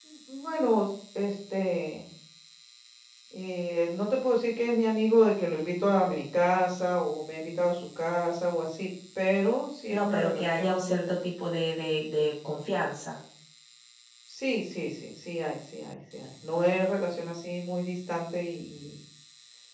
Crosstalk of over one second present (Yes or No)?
Yes